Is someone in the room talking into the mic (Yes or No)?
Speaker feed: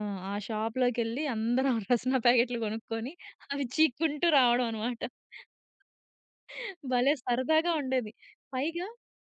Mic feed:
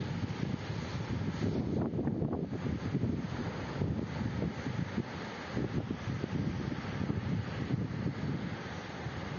No